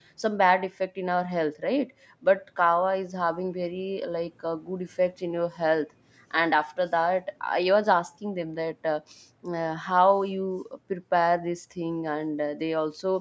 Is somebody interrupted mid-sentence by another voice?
No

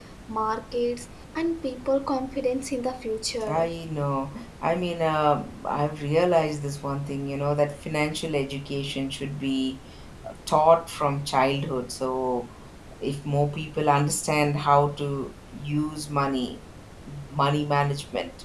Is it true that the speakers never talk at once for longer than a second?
Yes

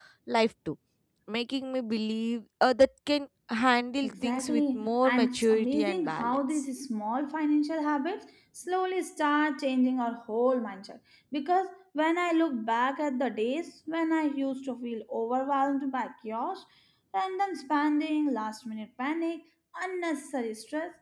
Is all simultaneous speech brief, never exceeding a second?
No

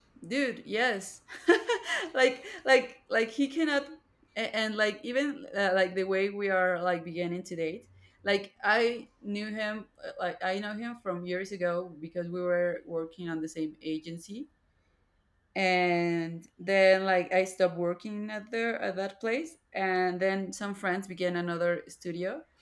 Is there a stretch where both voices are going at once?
No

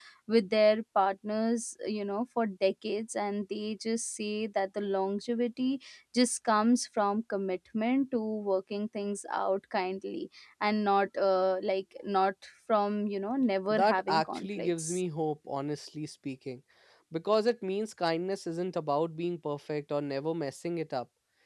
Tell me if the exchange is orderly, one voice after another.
No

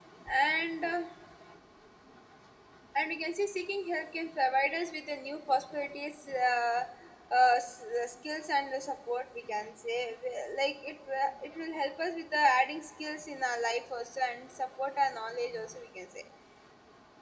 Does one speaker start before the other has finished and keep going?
No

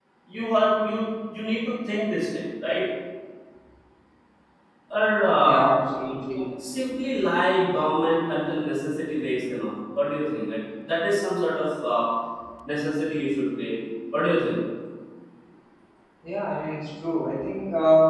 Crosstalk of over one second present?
No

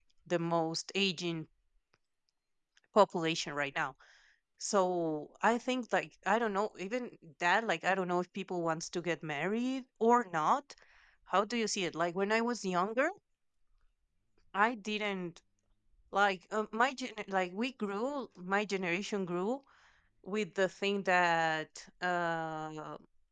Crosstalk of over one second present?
No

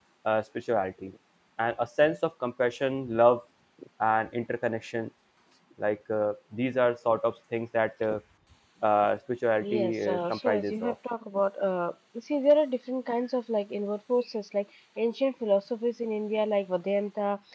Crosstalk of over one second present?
Yes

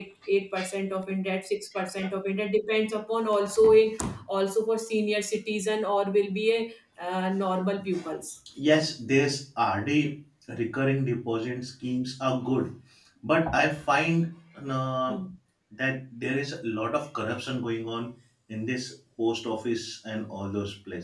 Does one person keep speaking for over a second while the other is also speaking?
No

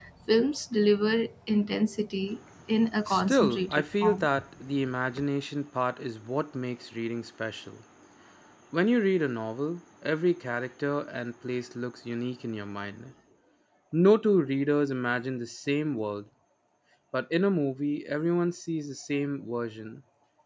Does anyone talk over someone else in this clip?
Yes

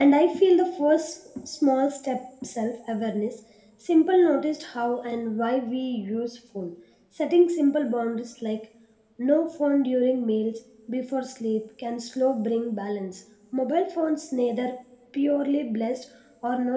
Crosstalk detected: No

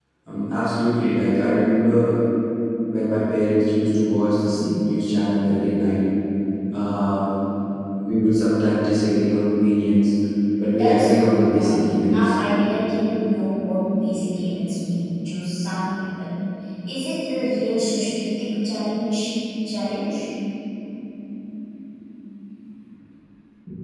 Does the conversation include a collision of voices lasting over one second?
Yes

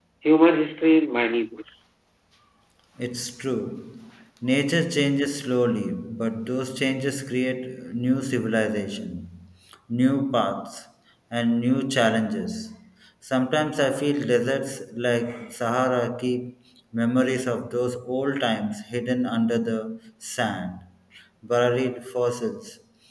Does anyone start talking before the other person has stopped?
No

